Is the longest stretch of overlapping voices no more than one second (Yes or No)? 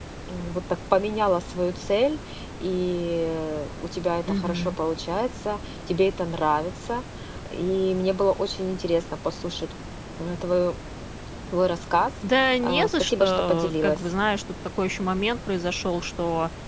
No